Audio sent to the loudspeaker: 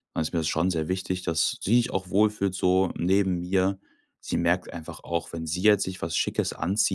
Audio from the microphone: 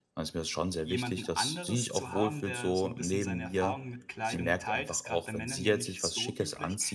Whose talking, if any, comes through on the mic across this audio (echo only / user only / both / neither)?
both